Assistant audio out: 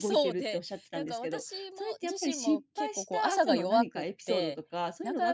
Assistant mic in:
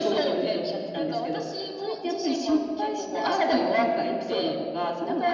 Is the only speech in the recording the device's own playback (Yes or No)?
Yes